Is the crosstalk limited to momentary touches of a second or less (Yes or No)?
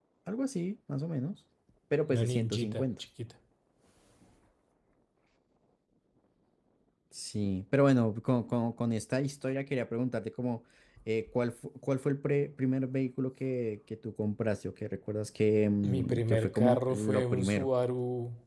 No